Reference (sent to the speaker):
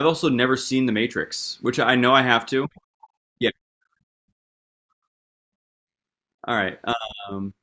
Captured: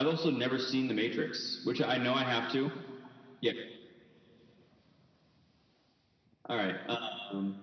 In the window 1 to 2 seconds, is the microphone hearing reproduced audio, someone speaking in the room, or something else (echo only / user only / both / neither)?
echo only